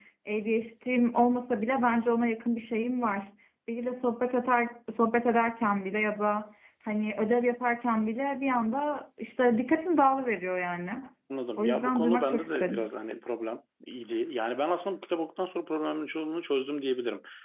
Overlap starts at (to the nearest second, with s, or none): 12 s